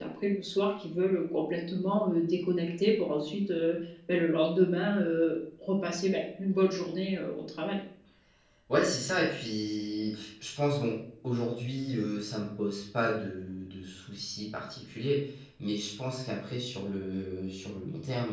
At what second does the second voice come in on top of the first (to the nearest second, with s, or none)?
none